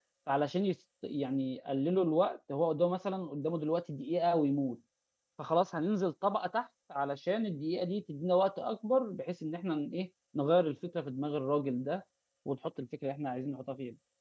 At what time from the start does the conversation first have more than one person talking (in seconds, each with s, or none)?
none